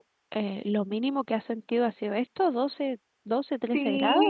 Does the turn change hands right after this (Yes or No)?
Yes